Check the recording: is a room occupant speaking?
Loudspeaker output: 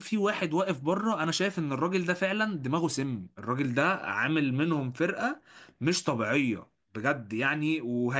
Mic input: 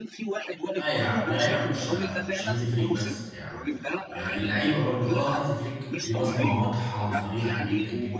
Yes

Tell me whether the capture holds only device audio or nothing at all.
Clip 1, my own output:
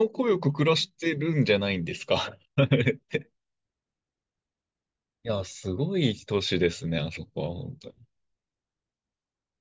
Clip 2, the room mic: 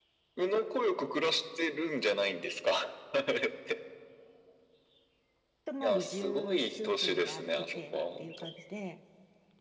No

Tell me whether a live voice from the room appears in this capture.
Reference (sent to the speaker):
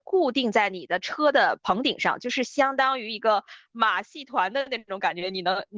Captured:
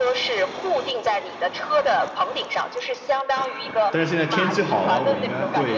Yes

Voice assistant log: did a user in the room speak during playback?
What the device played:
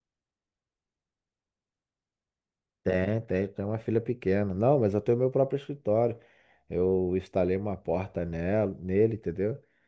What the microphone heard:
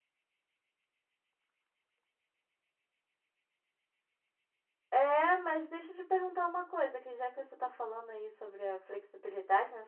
Yes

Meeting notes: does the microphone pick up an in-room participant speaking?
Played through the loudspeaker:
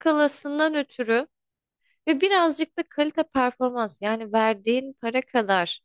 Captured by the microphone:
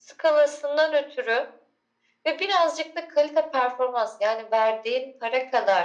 No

